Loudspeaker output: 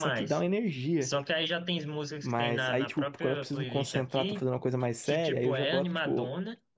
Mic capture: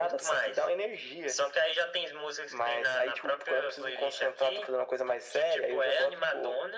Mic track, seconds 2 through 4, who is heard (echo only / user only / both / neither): echo only